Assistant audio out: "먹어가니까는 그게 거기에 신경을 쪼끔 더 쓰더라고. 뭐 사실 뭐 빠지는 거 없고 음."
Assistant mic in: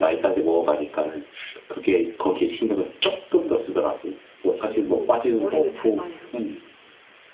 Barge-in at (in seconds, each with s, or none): 4.6 s